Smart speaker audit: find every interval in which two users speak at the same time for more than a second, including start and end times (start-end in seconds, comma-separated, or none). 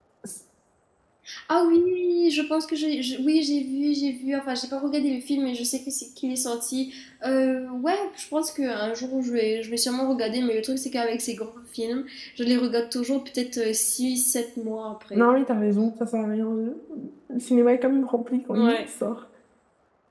none